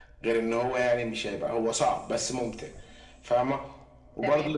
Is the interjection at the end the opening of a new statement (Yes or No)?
Yes